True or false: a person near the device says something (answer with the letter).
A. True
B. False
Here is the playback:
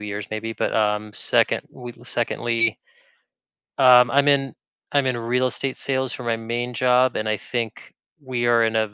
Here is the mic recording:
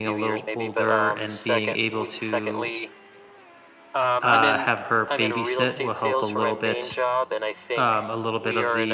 A